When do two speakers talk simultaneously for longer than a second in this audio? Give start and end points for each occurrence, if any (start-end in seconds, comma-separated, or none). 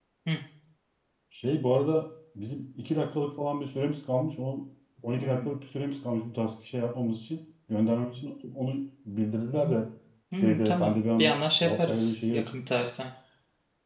10.4-12.6